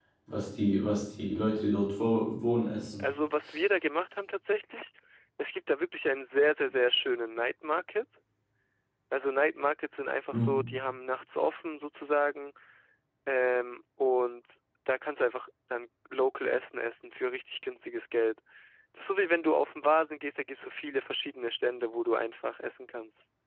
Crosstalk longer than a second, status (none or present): none